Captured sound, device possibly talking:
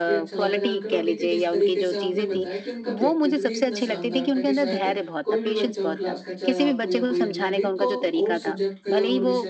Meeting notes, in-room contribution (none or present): present